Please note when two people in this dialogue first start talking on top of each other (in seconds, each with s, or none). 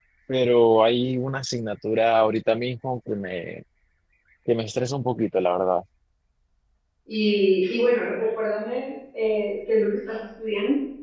none